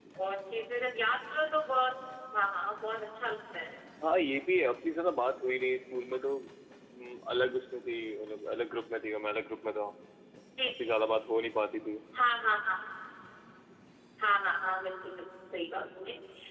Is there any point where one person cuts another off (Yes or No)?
No